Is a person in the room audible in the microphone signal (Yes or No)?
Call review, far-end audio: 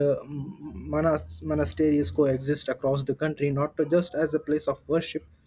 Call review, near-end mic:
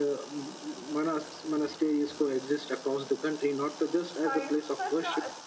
Yes